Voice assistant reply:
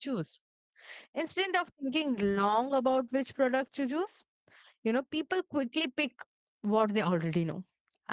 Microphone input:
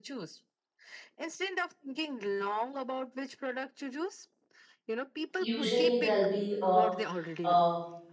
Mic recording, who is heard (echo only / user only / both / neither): both